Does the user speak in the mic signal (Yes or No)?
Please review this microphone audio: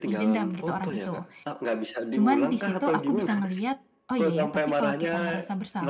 Yes